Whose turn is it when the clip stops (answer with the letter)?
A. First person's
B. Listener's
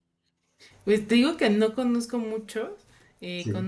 A